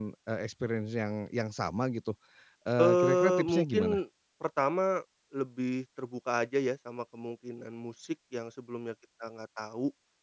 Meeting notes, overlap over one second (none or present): present